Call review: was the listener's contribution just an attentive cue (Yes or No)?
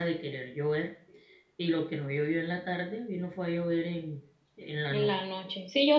No